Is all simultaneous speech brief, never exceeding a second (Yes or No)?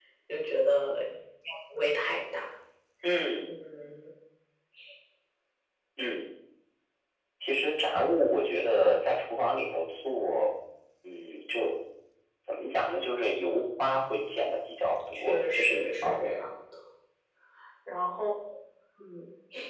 No